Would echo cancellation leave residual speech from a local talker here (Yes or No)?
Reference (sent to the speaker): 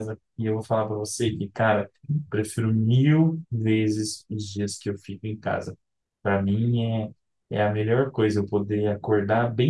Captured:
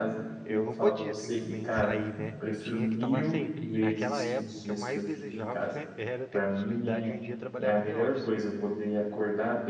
Yes